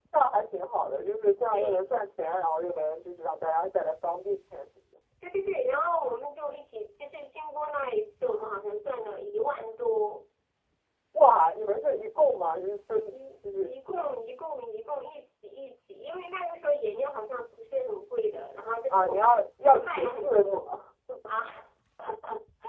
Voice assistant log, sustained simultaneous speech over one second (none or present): present